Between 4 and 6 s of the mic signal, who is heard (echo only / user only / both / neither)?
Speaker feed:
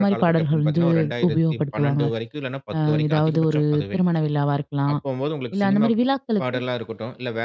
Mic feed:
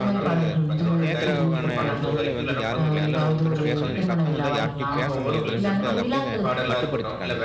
both